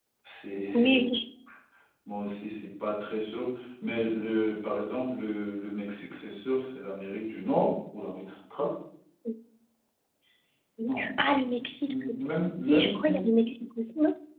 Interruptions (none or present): present